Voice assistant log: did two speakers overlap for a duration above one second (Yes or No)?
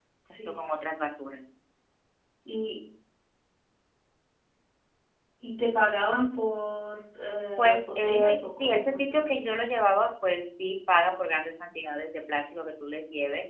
Yes